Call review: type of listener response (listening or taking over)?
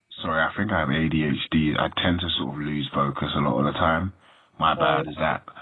listening